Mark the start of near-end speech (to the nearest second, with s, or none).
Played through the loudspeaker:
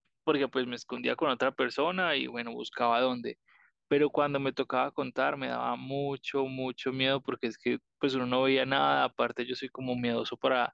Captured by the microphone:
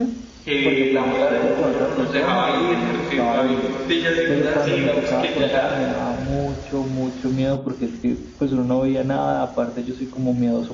0 s